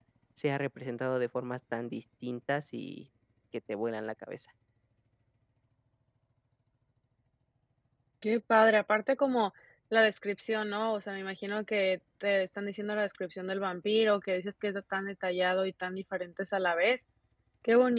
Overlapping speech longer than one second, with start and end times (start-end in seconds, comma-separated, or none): none